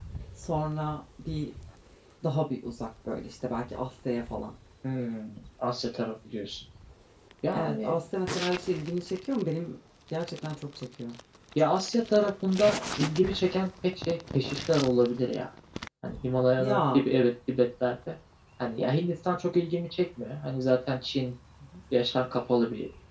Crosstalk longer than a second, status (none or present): none